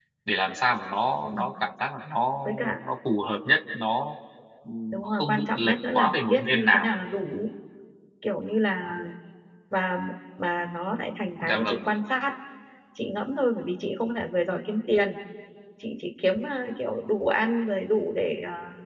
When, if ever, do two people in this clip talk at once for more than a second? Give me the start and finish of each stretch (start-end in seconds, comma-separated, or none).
4.9-6.9